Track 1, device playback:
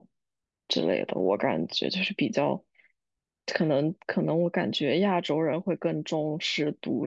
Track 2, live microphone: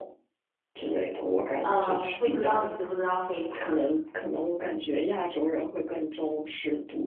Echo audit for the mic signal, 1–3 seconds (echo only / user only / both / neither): both